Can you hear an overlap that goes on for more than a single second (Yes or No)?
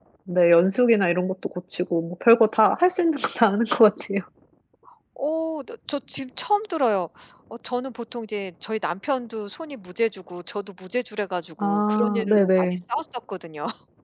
Yes